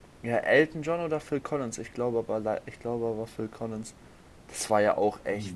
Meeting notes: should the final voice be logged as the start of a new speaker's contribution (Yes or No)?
No